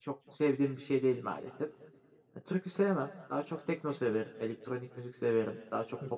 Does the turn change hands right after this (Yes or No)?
No